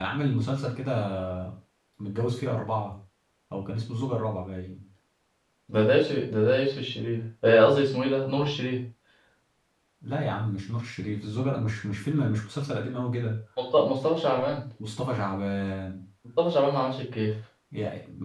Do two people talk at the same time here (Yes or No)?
No